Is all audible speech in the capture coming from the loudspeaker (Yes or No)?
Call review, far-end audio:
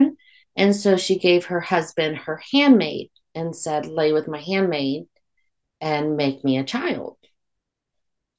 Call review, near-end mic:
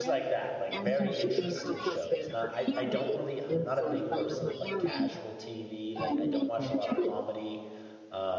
No